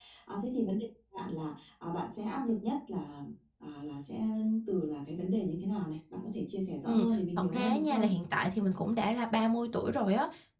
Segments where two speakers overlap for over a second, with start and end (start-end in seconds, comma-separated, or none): 6.8-8.1